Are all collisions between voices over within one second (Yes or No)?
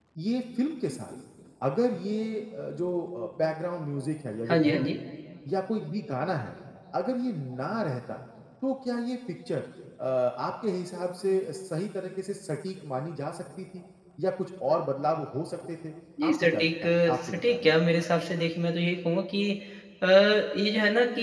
No